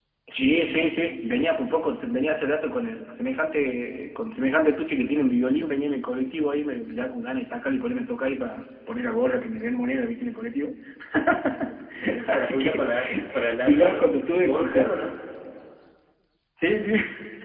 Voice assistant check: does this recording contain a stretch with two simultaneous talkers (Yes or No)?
Yes